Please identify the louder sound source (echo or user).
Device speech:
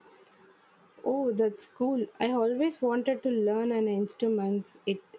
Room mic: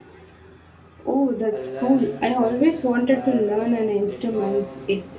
echo